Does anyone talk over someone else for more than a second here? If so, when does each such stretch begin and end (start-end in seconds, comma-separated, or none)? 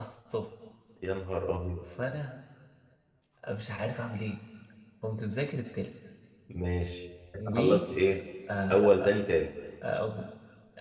none